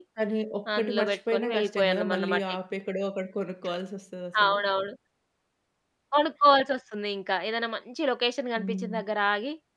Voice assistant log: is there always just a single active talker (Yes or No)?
No